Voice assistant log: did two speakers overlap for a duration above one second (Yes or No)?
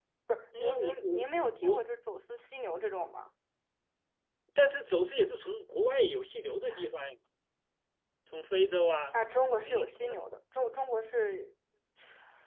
Yes